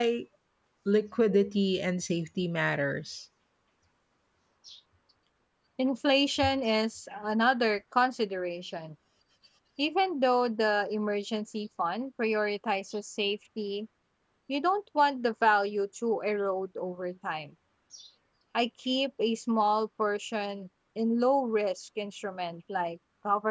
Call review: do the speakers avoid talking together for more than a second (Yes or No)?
Yes